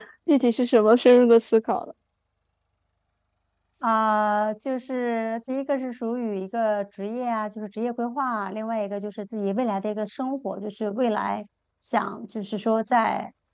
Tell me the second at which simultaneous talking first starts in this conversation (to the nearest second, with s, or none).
none